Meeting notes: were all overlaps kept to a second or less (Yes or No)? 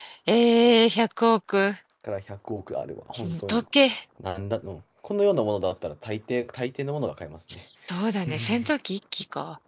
Yes